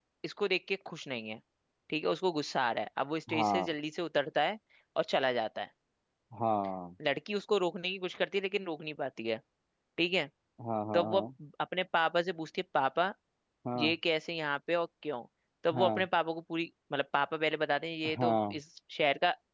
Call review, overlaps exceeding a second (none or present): none